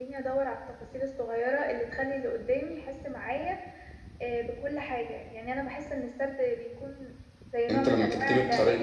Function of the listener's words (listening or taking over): taking over